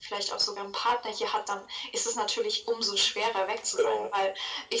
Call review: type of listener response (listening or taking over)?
listening